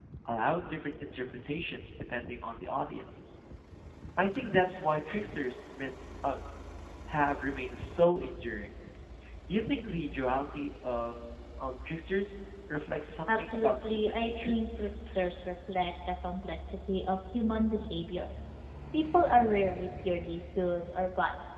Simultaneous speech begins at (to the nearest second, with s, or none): 13 s